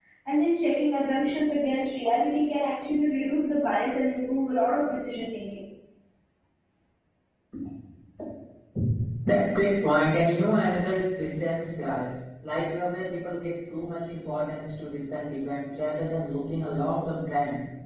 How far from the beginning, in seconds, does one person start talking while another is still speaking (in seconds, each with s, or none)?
none